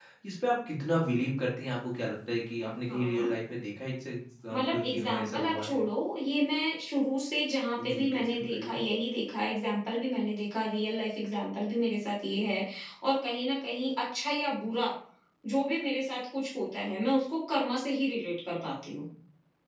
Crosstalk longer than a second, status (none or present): present